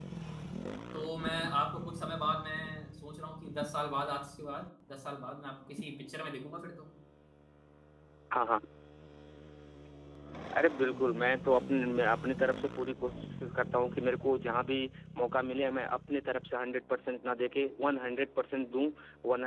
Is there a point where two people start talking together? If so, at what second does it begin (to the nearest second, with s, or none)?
none